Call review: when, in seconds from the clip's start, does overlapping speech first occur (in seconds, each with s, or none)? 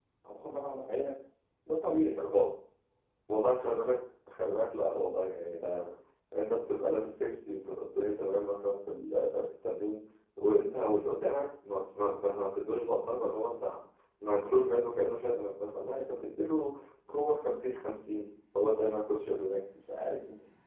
none